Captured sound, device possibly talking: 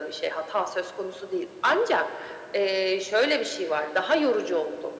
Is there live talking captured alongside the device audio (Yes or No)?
No